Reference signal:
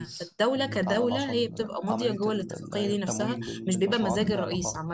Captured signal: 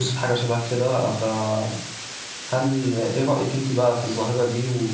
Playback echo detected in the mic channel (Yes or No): No